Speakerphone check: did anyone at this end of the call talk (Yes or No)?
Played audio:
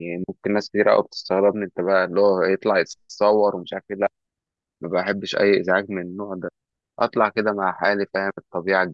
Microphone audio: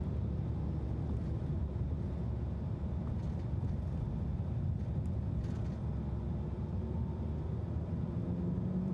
No